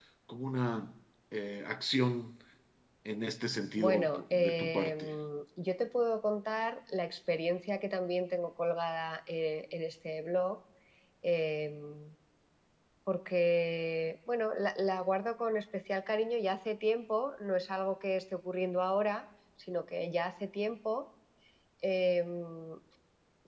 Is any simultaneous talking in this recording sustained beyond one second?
Yes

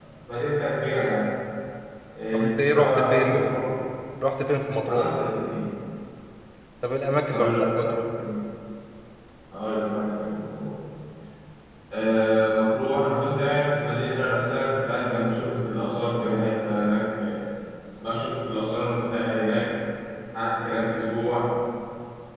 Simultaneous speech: Yes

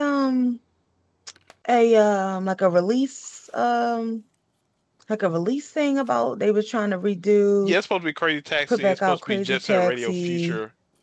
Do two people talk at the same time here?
Yes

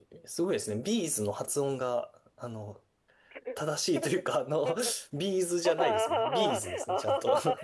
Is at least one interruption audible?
Yes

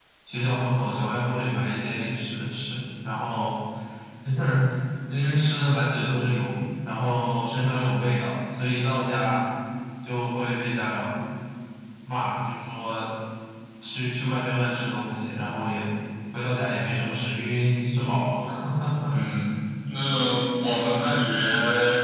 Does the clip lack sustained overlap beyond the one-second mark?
Yes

